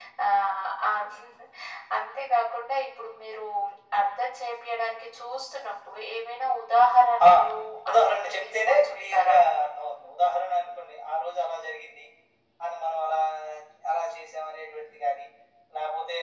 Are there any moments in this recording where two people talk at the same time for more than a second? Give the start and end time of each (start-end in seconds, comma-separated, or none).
7.9-9.4